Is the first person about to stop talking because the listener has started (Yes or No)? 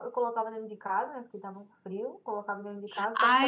Yes